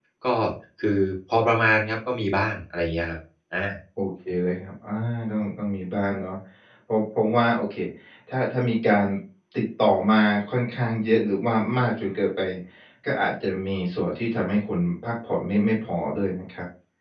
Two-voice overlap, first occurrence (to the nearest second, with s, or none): none